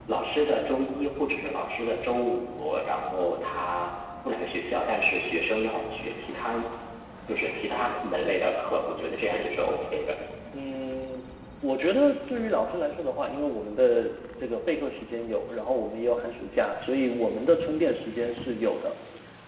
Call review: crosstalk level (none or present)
none